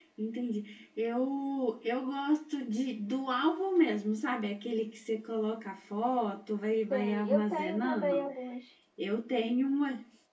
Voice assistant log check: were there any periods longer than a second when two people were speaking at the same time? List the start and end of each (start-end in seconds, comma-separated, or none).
6.9-8.3